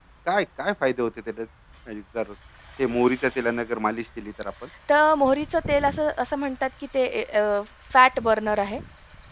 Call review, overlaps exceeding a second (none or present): none